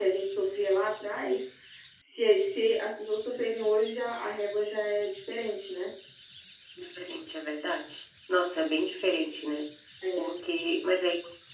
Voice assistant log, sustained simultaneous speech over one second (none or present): none